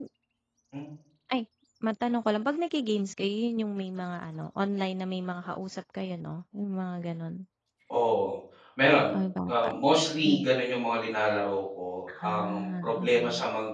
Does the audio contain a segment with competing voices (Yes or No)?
Yes